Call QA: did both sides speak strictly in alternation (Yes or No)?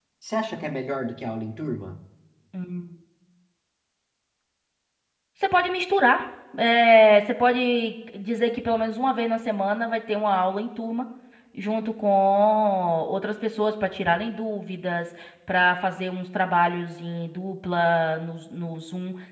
Yes